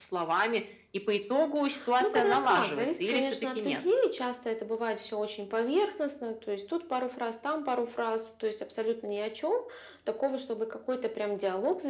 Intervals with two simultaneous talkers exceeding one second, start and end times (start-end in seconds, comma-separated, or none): 2.0-3.8